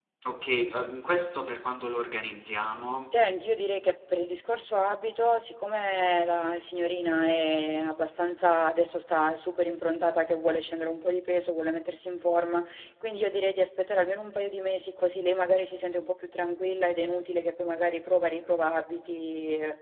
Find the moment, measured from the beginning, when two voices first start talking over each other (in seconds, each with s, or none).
none